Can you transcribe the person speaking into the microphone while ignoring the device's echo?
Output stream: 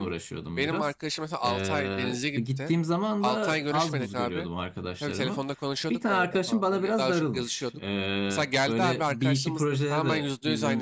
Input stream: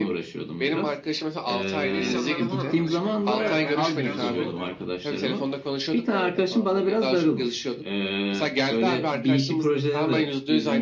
yeni insanlarla falan tanışmakta bayağı ben de biraz zorlanıyorum.

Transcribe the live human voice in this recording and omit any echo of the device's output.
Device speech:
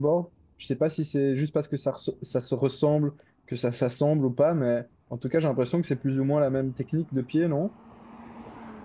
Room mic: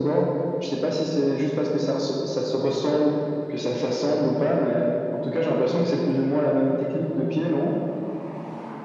none

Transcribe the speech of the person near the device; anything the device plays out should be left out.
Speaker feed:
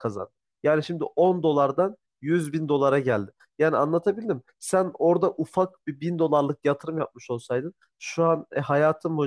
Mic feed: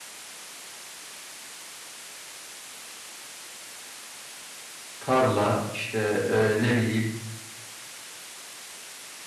tarla işte e, ne bileyim

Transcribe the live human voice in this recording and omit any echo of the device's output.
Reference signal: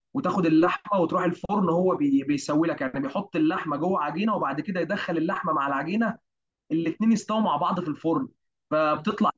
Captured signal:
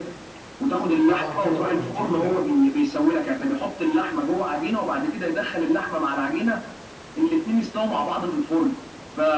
طبعا كده بتكون تقيله

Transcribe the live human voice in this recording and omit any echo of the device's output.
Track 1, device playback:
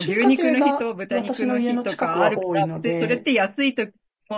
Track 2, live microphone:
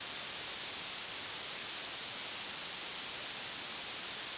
none

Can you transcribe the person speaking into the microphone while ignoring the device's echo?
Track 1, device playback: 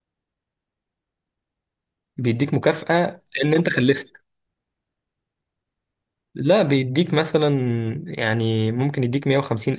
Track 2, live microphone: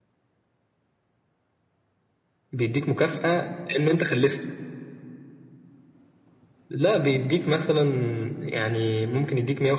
none

